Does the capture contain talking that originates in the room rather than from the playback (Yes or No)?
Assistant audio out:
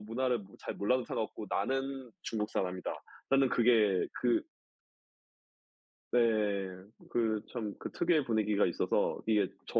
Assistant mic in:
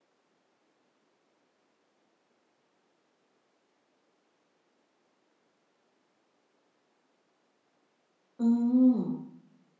Yes